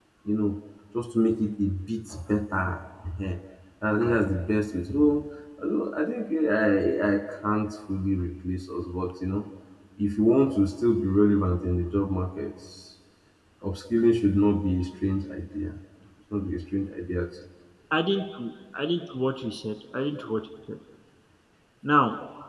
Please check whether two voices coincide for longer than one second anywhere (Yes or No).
No